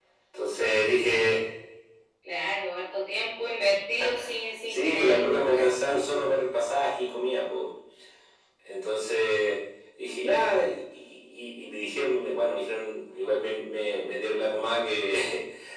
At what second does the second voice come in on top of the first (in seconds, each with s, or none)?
4.7 s